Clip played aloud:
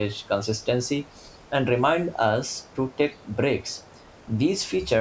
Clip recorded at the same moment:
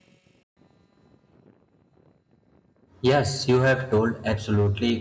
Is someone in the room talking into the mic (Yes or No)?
Yes